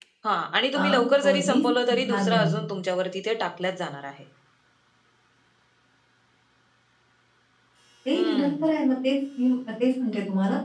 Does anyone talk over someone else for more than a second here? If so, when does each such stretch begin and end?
0.7-2.5

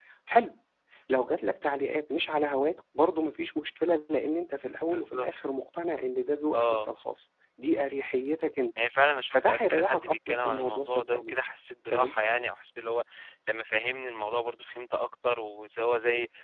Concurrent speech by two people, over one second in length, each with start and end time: 9.3-11.3

